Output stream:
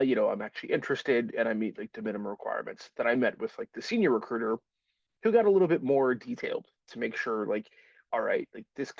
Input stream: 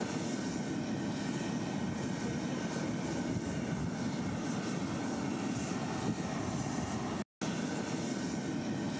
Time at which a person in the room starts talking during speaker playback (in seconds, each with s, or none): none